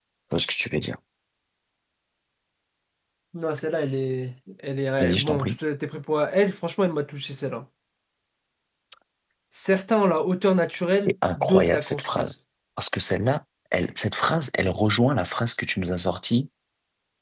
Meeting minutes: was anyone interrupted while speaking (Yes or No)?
Yes